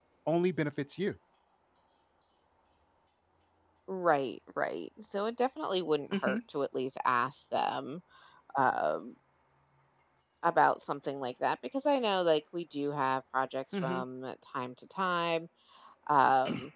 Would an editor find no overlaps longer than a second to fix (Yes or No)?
Yes